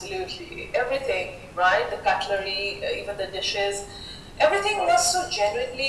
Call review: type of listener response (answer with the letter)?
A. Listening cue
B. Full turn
A